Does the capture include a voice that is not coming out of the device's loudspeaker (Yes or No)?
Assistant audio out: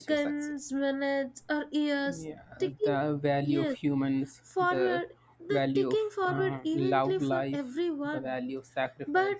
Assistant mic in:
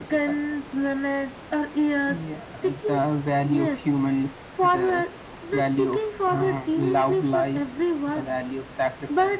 No